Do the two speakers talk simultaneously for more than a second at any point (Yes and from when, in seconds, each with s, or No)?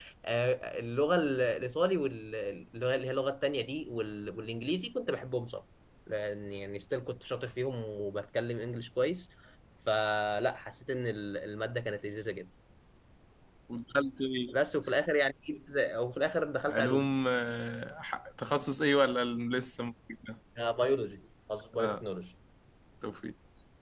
No